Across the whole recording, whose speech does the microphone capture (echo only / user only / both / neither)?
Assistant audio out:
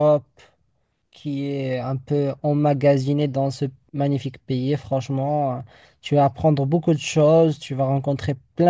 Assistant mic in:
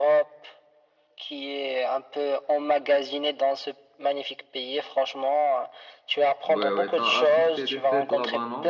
both